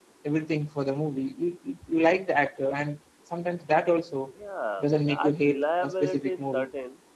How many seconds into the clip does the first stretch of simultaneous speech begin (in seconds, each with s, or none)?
4.8 s